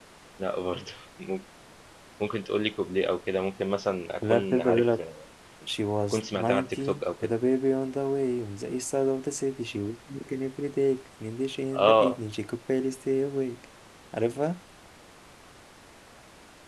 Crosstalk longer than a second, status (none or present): present